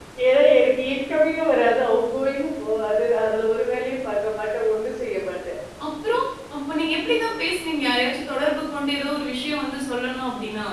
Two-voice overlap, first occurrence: none

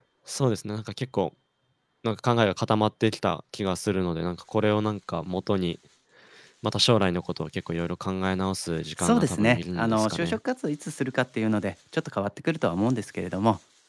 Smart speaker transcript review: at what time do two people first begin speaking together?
9.0 s

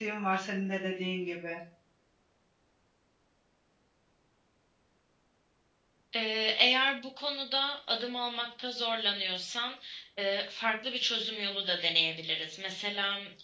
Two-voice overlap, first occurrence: none

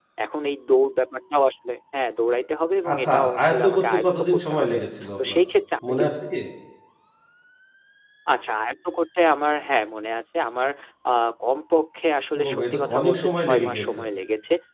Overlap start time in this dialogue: 2.9 s

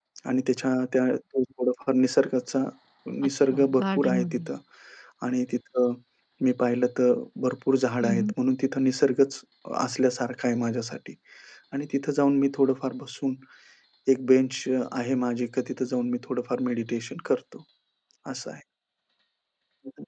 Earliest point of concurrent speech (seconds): 3.2 s

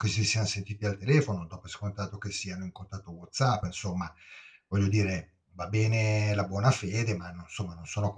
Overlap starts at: none

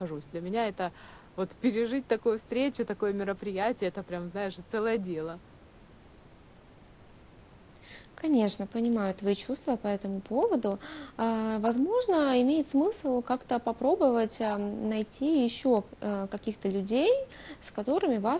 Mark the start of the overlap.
none

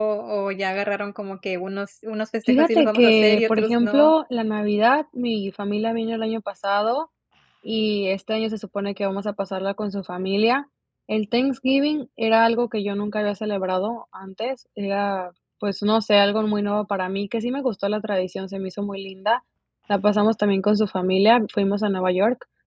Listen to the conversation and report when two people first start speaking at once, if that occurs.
2.5 s

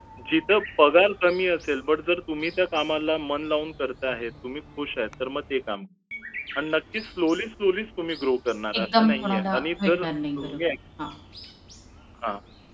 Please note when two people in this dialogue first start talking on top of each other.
8.7 s

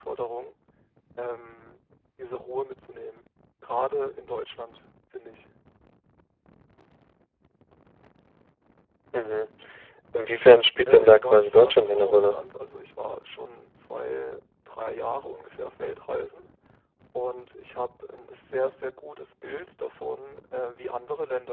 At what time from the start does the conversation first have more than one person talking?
10.9 s

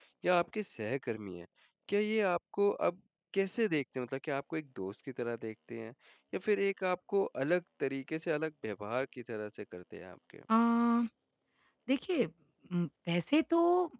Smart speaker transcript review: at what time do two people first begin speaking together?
none

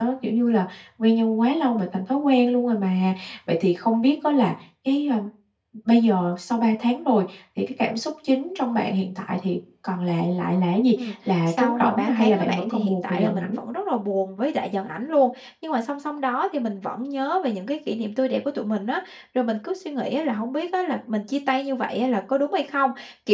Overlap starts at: 11.0 s

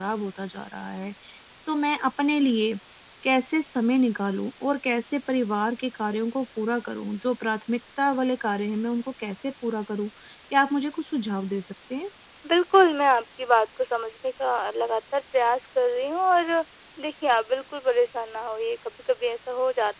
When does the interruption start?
none

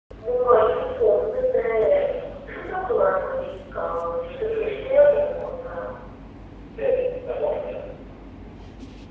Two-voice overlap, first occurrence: 3.8 s

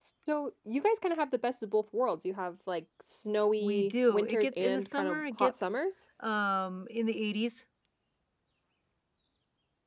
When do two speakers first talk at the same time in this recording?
3.6 s

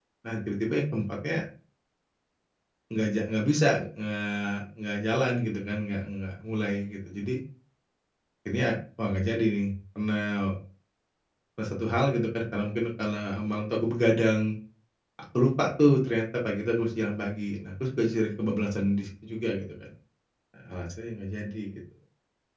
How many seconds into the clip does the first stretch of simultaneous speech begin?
none

